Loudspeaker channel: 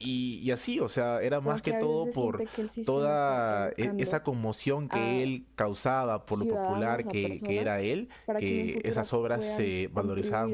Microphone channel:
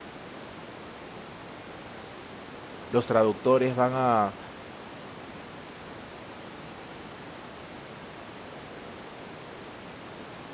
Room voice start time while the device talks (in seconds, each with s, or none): 2.9 s